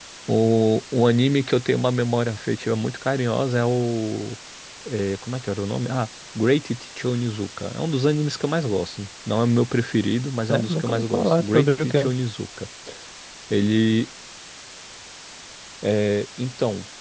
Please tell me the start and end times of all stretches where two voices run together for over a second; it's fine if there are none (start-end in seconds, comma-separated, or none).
10.5-12.1